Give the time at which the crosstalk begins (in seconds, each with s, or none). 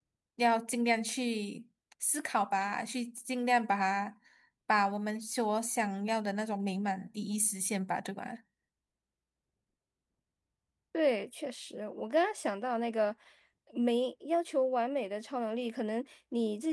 none